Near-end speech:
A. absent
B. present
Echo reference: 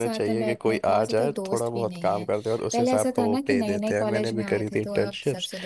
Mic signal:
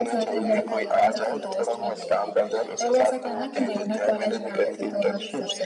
B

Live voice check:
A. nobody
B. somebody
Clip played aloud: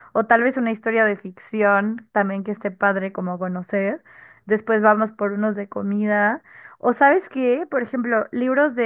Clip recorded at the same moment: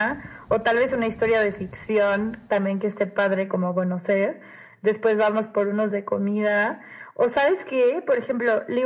A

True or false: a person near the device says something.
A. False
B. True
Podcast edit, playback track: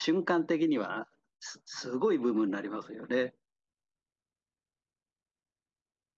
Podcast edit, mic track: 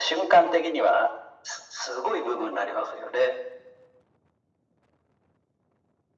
A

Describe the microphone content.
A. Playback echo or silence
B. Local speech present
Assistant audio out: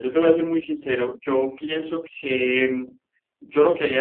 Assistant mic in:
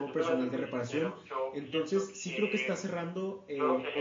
B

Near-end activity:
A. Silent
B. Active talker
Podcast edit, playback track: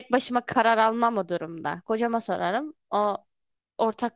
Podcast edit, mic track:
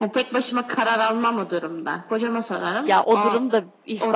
B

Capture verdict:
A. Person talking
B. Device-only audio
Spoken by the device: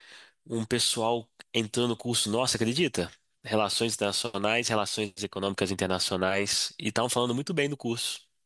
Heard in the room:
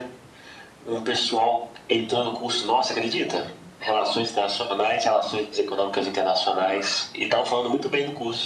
B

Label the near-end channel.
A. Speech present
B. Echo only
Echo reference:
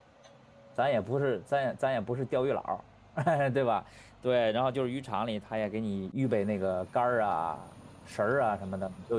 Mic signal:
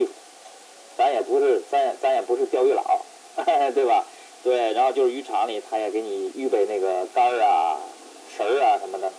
B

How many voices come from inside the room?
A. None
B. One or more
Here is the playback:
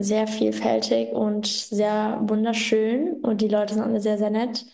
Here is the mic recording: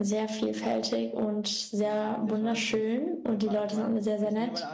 B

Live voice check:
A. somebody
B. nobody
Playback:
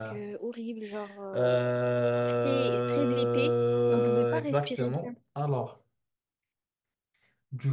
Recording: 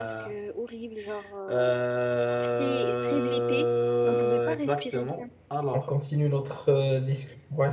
A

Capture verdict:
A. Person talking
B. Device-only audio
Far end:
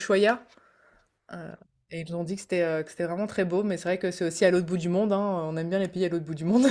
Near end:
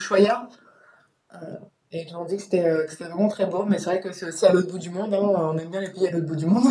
B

